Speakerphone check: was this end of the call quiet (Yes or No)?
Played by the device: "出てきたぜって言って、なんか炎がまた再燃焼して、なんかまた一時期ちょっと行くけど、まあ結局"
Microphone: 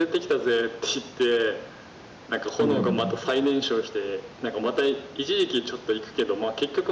No